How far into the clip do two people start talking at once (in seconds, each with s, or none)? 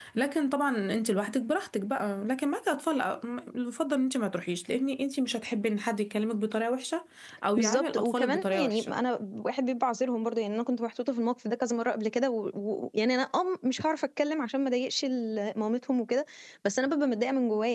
7.6 s